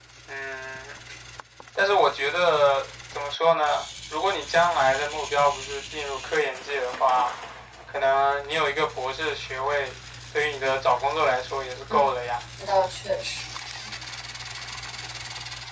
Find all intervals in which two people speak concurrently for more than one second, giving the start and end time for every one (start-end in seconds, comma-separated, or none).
none